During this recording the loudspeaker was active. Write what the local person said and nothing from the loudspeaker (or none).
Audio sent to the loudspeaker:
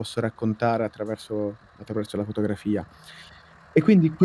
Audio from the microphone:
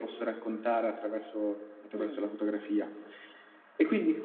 Mh.